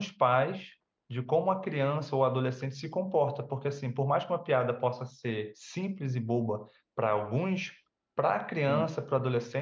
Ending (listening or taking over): listening